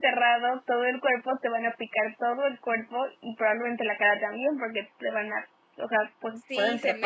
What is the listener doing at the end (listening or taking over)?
taking over